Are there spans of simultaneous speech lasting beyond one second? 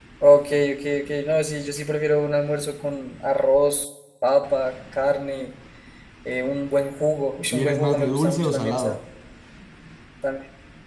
Yes, from 7.5 s

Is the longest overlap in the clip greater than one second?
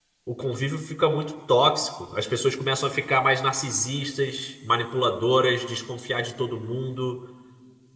No

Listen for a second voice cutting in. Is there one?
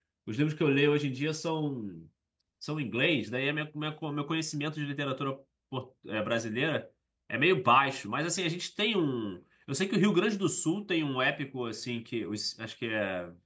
No

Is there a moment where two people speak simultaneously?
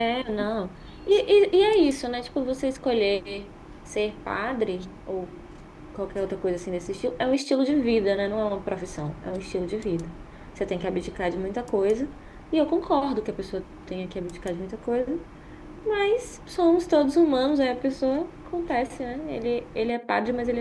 No

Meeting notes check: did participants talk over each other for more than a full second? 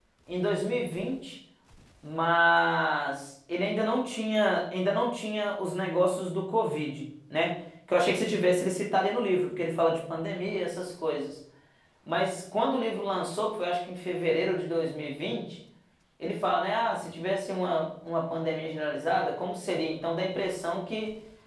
No

